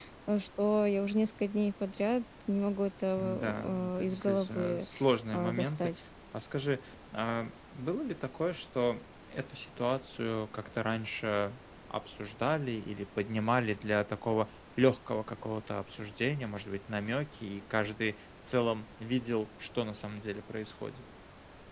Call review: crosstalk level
present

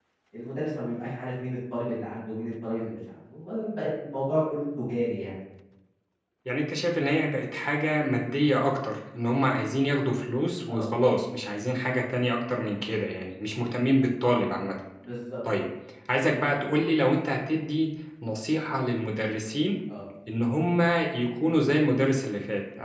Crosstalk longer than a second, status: none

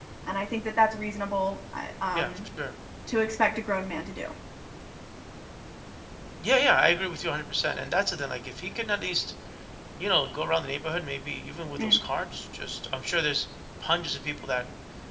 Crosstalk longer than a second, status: none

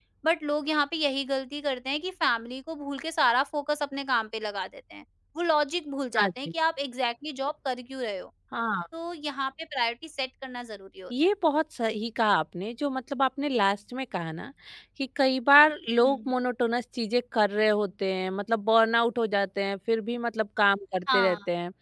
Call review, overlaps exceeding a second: none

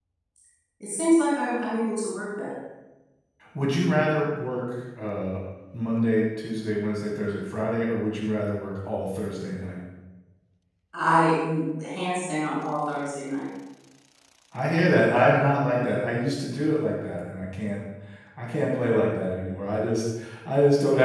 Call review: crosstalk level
none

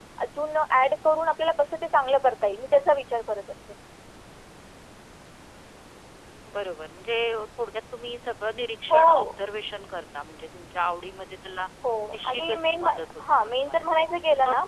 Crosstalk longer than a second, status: present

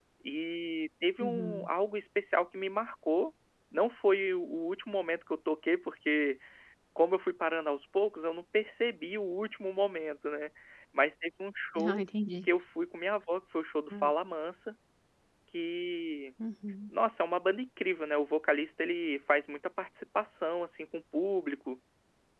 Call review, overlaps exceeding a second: none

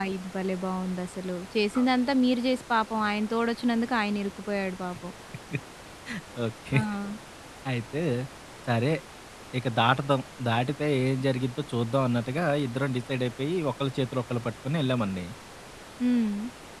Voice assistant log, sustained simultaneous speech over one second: none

